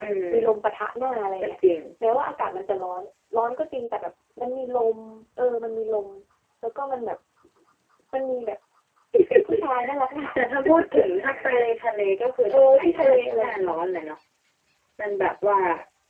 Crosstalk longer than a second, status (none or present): present